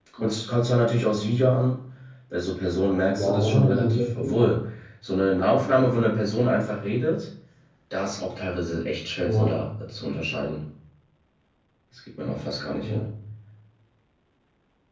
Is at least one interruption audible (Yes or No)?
Yes